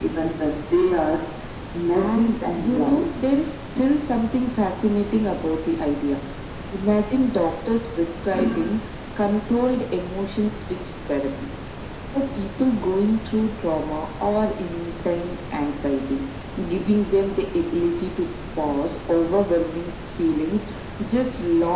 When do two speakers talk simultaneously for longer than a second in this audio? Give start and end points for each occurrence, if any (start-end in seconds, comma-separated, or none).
1.9-3.1